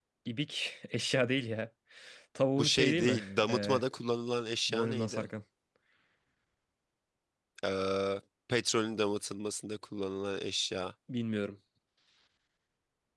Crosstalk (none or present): present